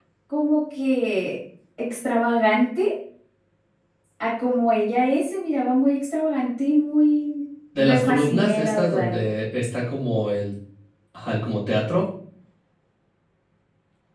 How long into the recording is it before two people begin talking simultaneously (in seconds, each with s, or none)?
7.8 s